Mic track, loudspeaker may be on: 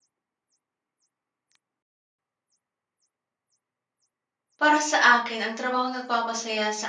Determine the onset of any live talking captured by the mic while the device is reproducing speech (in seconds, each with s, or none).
4.6 s